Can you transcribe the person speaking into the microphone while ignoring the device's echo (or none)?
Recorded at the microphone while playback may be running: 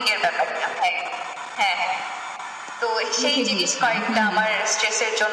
লিখে দিয়েছিলাম হু, হু।